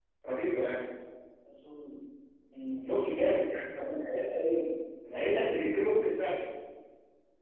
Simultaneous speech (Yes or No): No